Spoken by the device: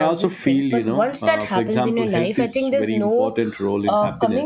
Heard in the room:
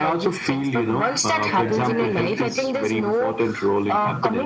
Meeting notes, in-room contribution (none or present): present